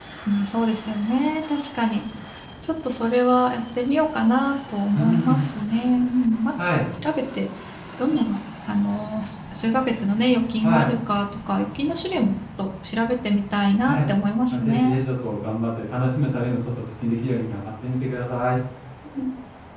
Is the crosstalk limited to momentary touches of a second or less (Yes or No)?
Yes